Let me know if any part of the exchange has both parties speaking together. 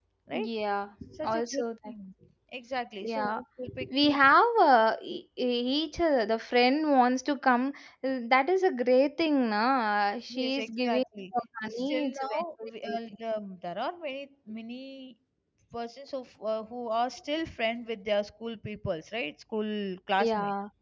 Yes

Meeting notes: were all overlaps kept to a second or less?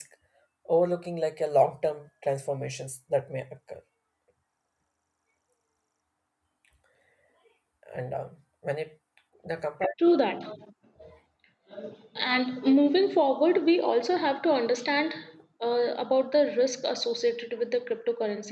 Yes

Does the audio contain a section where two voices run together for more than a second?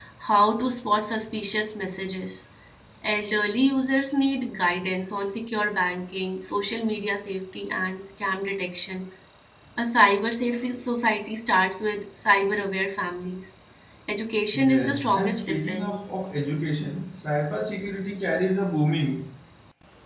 Yes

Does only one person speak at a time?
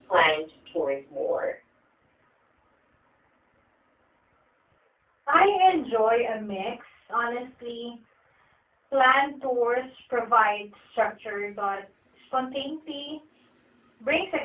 Yes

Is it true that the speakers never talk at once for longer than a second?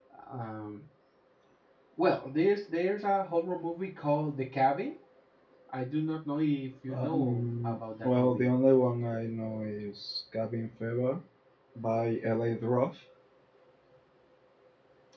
No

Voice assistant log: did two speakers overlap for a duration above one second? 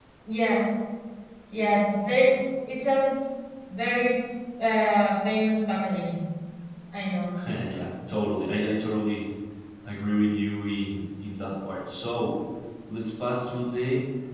No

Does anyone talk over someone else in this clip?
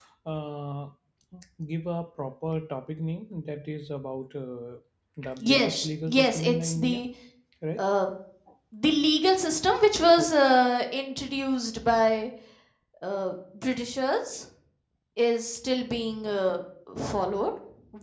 Yes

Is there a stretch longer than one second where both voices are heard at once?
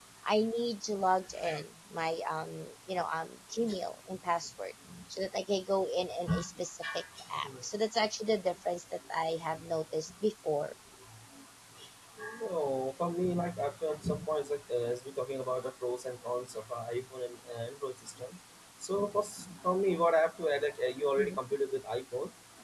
No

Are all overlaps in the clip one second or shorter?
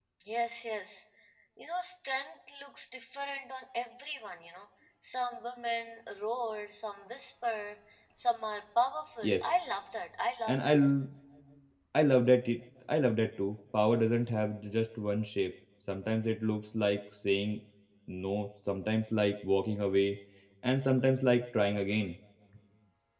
Yes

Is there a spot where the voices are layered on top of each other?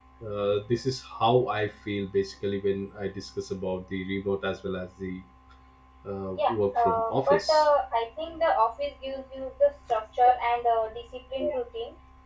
Yes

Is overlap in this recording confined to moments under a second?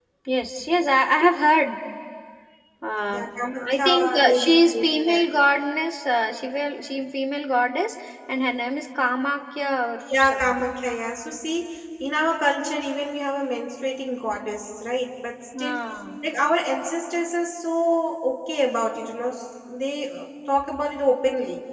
No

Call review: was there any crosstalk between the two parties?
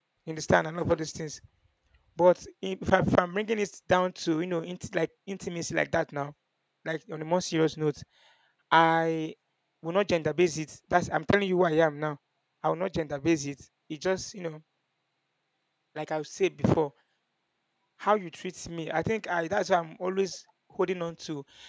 No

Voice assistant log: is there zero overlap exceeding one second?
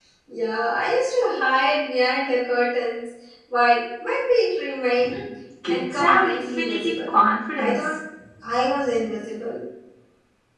No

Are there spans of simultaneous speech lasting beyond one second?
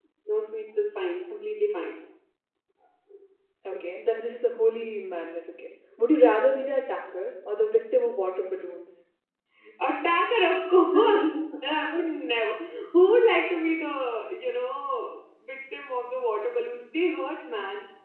No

